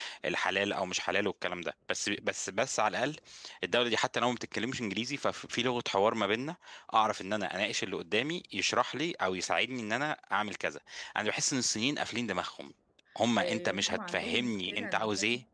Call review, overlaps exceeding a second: present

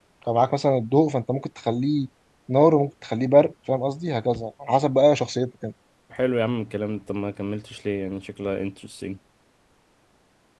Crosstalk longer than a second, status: none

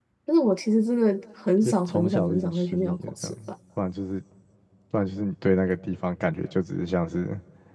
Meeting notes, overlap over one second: present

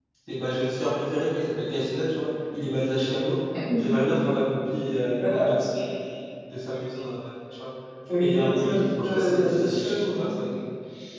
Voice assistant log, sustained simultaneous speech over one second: present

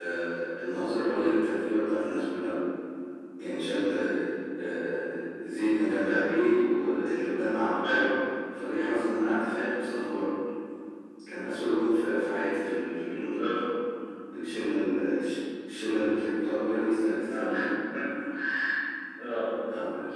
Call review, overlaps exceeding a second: none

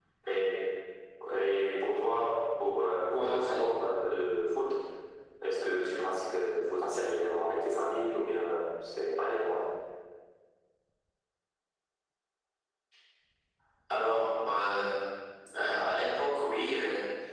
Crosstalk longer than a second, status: none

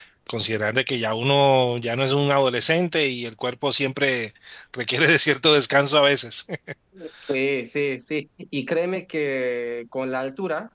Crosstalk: none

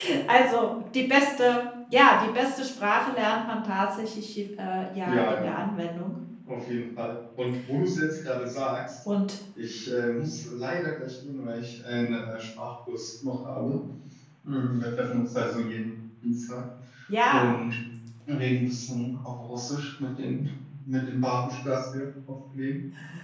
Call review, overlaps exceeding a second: none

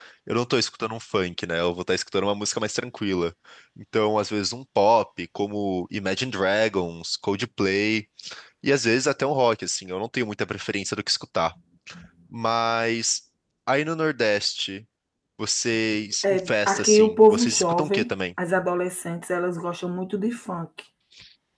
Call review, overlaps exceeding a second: present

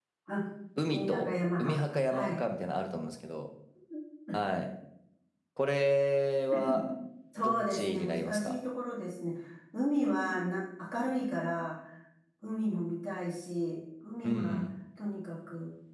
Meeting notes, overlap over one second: present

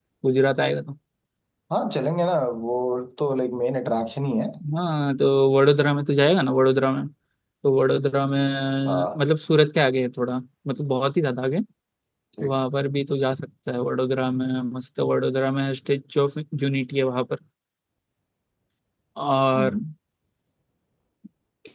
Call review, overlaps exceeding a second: none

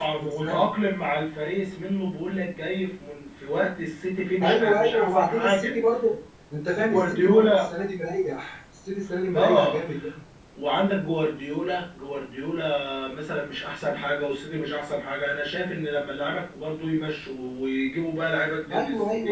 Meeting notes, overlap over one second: present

